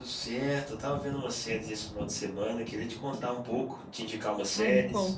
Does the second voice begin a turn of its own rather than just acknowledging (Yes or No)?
Yes